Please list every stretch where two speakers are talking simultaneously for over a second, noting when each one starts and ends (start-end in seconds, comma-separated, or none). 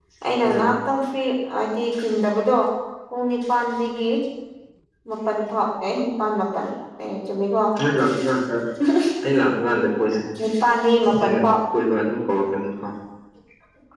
none